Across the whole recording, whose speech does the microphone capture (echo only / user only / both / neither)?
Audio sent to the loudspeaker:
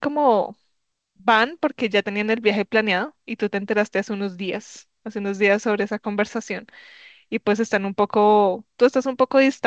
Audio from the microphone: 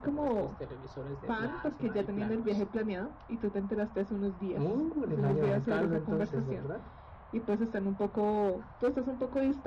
both